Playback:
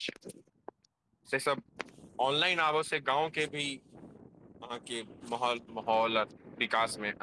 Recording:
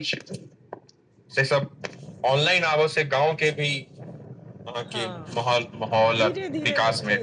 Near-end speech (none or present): present